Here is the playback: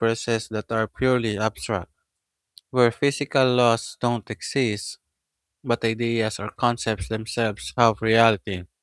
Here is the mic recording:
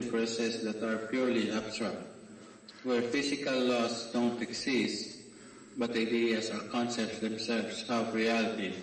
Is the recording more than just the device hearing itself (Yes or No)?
No